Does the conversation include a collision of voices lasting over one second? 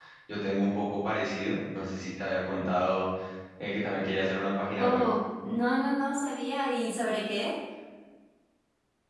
No

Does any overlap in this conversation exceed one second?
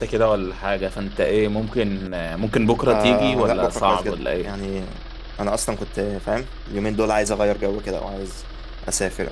Yes, from 2.9 s

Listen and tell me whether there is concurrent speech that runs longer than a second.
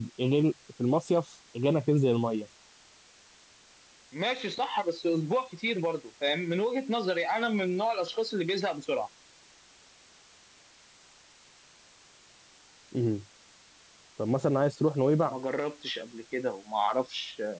No

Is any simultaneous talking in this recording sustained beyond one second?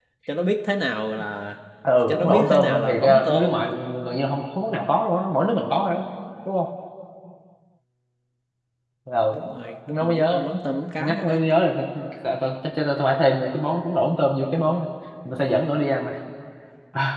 Yes, from 2.1 s

